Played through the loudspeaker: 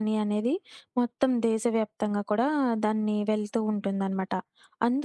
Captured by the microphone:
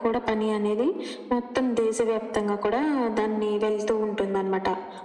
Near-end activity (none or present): none